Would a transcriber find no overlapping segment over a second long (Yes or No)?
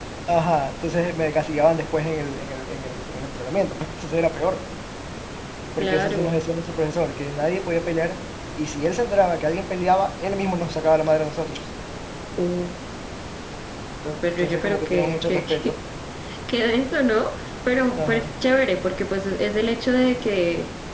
No